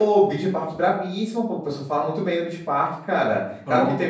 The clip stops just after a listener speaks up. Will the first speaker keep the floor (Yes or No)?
Yes